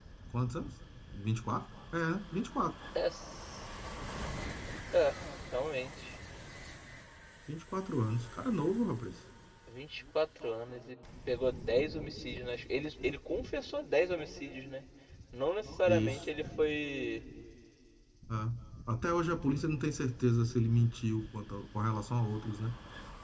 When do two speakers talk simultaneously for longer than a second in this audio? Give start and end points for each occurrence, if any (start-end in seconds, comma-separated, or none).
none